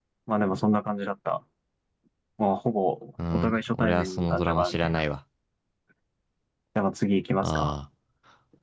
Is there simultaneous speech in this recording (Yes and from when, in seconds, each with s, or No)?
Yes, from 3.3 s